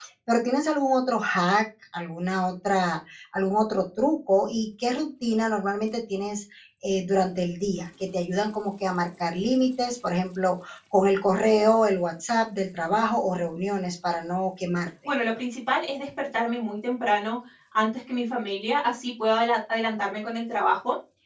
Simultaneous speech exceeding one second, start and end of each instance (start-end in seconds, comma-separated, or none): none